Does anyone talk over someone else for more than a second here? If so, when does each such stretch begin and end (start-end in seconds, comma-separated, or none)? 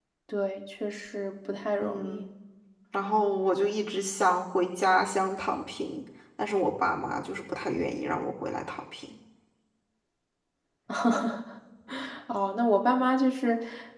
none